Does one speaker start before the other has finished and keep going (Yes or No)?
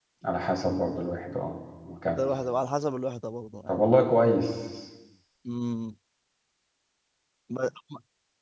No